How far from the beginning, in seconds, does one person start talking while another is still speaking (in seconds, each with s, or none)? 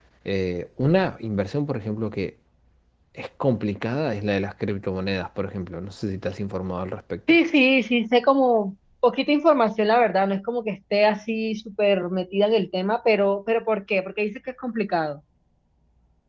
none